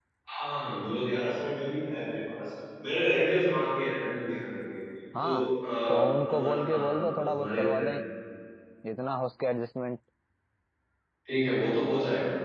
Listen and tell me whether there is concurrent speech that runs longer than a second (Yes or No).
Yes